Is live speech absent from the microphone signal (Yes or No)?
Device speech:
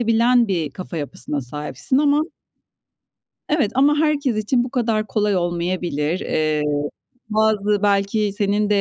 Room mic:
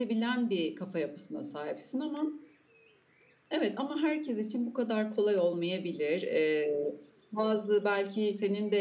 Yes